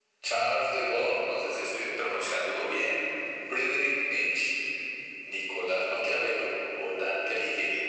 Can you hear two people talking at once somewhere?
No

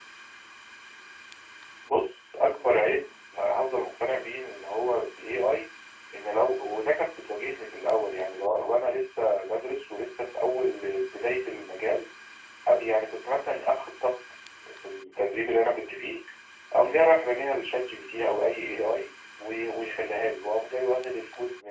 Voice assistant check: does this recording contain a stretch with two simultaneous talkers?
No

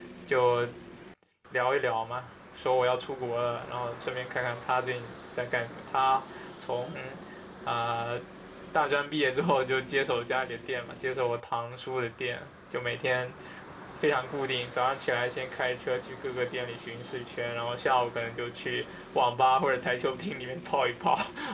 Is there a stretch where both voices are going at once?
No

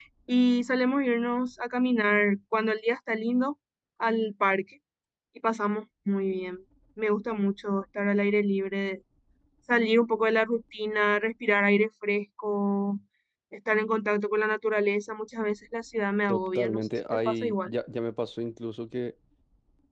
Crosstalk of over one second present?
Yes, from 16.3 s

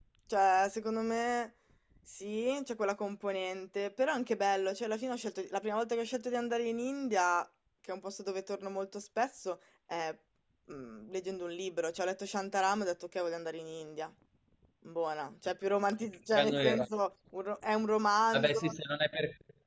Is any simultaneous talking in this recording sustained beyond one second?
No

